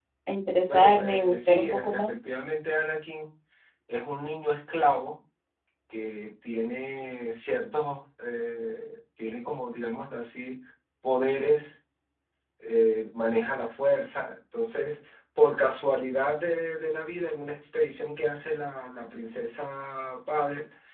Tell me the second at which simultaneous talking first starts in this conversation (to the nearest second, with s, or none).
1 s